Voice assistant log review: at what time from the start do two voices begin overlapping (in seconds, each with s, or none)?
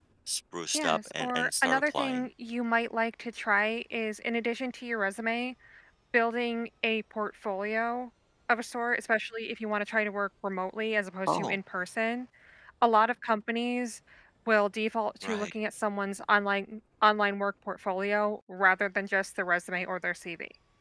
0.7 s